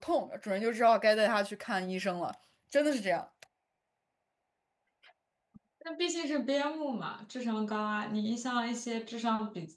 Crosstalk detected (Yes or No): No